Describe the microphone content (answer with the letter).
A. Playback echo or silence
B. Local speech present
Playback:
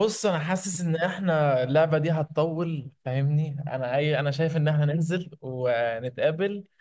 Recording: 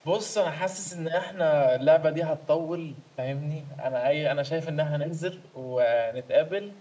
A